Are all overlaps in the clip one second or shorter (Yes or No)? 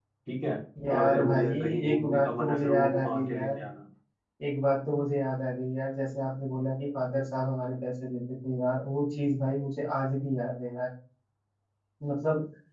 No